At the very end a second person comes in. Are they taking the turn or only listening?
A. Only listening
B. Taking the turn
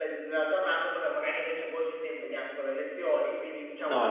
B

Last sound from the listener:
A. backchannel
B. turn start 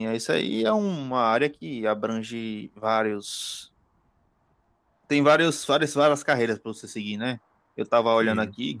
A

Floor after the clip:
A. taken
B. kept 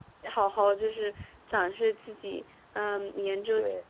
B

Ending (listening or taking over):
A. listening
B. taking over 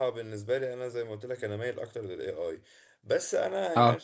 A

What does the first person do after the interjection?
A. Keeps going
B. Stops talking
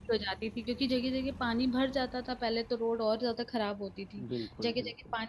A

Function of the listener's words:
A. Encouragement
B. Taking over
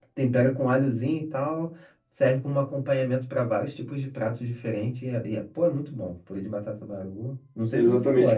B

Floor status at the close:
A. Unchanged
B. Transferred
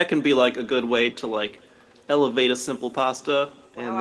B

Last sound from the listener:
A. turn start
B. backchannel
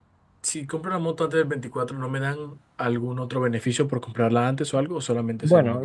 A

